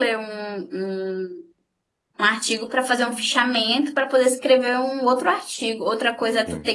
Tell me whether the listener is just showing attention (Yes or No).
Yes